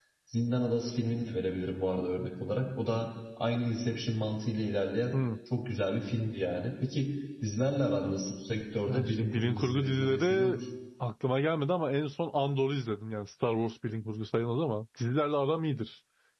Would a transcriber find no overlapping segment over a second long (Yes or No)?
No